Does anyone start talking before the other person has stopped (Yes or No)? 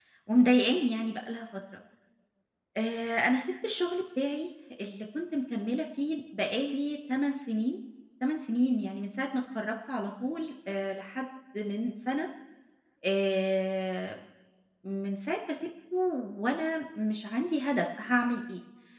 No